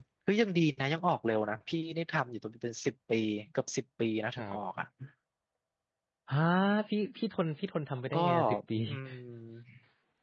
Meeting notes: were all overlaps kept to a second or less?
Yes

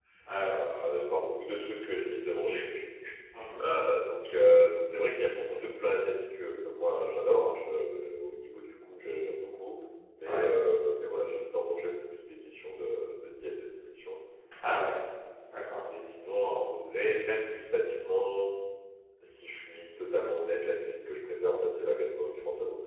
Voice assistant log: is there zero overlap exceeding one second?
Yes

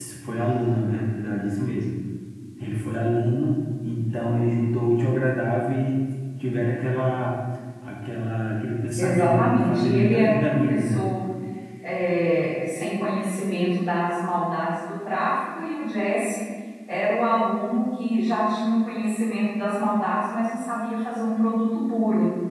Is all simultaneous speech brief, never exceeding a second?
No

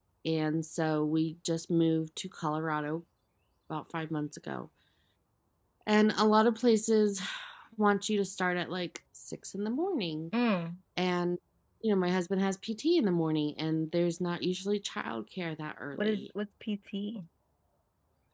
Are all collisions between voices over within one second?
Yes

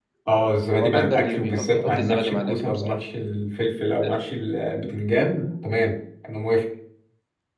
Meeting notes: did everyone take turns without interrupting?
No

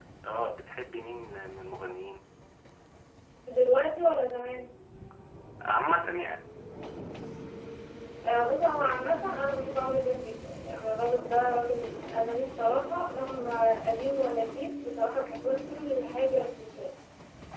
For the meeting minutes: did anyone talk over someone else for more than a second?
No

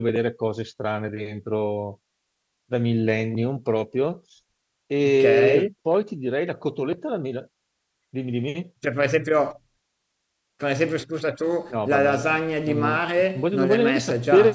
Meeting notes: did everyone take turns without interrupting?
No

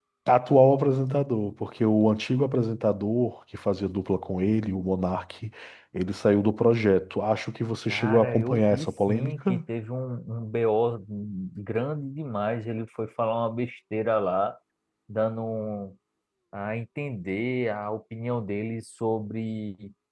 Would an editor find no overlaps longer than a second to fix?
No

